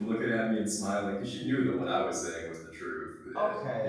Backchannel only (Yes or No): No